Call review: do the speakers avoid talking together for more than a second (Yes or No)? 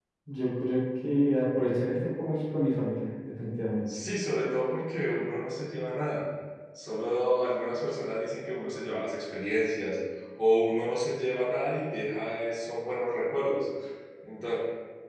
Yes